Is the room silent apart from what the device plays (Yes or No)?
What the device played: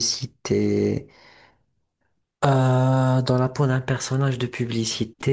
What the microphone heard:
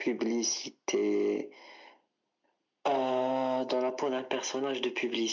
Yes